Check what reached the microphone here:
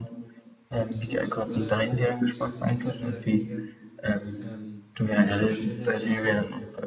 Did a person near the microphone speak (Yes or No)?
Yes